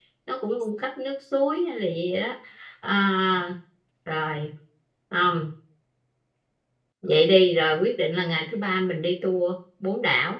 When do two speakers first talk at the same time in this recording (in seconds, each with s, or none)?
none